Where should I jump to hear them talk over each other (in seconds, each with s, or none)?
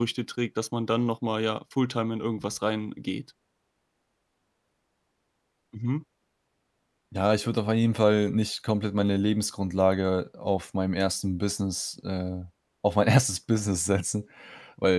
none